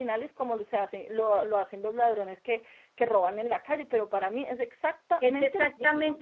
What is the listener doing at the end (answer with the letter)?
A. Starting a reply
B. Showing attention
A